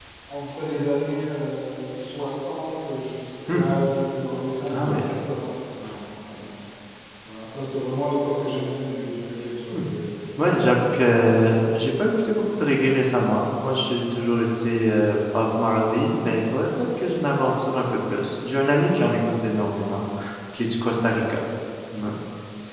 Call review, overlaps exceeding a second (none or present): none